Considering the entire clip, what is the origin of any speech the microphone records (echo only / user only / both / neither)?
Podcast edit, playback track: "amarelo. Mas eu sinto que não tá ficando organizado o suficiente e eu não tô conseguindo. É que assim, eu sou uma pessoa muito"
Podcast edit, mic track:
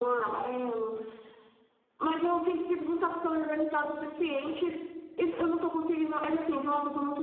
echo only